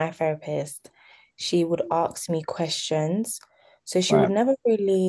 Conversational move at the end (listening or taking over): listening